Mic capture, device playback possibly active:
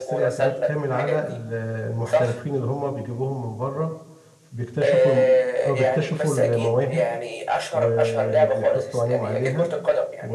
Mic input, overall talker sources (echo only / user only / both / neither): both